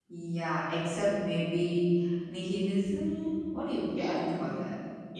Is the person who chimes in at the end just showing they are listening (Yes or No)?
No